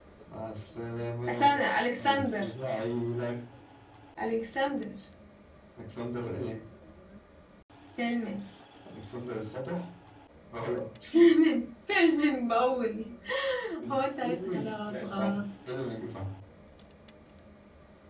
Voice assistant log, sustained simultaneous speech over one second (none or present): present